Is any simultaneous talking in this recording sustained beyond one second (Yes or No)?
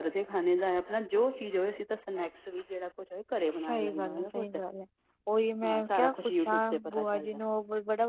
Yes